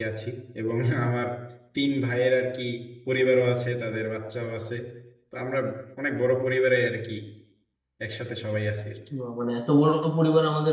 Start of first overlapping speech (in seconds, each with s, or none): none